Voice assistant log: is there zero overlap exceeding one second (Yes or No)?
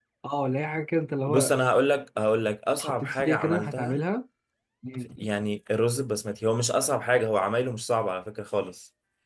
No